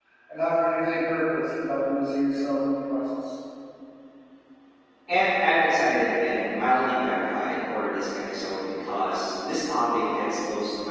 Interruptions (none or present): none